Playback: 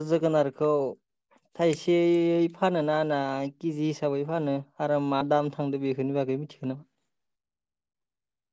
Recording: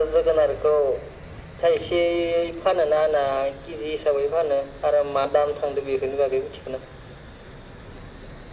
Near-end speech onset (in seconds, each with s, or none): none